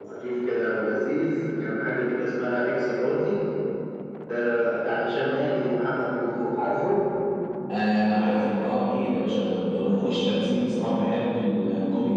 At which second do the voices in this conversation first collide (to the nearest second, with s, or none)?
none